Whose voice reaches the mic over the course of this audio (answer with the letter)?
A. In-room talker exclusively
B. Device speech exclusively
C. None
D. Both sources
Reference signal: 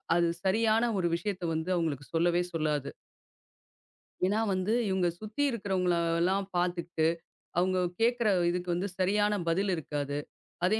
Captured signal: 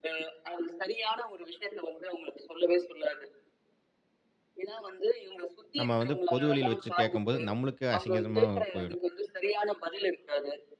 D